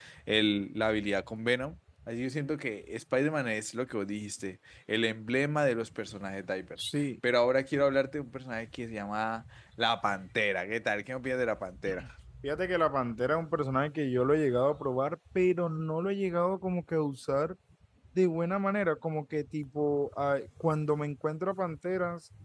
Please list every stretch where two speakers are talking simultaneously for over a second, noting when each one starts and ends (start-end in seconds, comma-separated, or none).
none